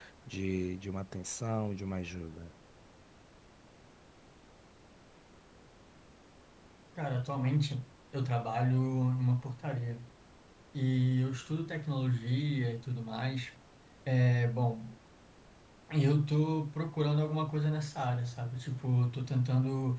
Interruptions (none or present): none